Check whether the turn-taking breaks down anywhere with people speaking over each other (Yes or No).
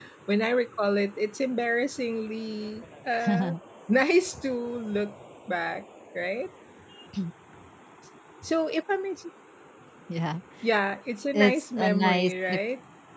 Yes